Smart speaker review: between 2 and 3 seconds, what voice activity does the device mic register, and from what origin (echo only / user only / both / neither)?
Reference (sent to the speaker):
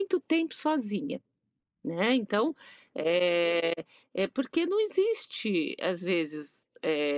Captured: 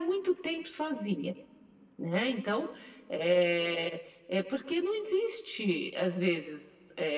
echo only